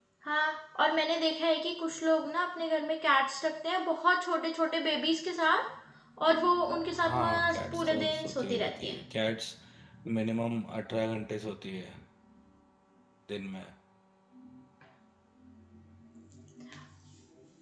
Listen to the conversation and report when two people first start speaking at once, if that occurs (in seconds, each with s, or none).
7.0 s